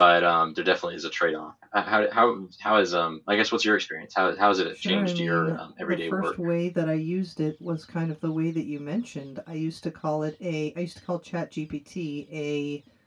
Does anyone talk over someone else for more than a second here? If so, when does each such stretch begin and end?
4.7-6.3

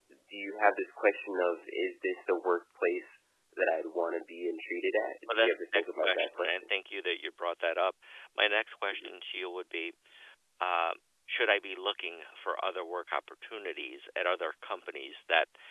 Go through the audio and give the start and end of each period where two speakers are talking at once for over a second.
5.3-6.7

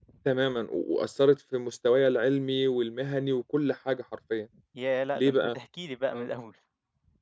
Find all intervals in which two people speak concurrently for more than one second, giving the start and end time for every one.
none

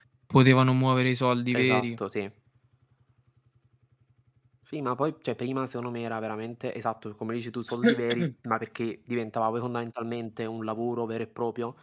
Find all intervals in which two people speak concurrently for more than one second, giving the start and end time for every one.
none

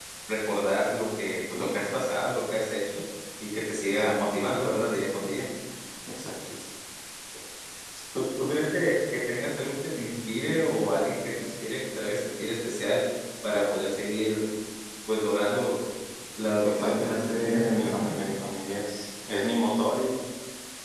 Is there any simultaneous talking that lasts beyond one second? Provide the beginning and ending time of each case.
16.6-18.1

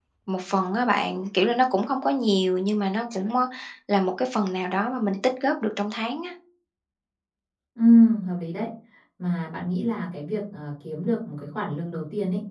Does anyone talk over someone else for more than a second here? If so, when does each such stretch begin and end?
none

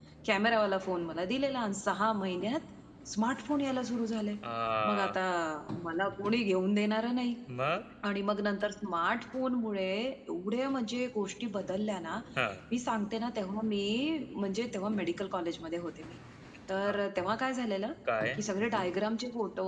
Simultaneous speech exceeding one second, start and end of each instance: none

